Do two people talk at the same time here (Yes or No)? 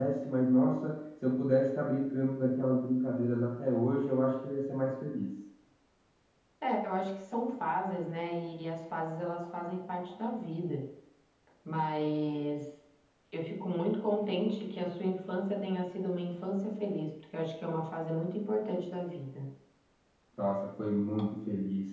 No